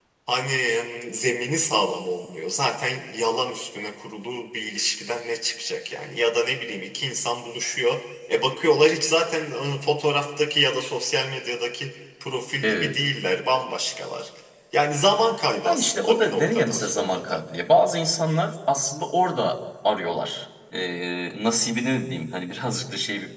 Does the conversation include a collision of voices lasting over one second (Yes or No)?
Yes